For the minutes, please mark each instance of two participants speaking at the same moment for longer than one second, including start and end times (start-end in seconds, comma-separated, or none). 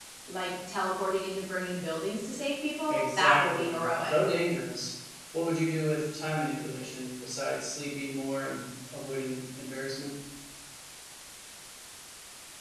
2.9-4.2